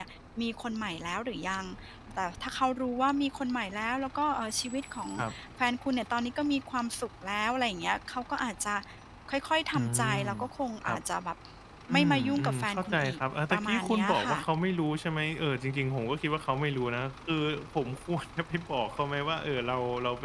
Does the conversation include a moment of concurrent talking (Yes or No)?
Yes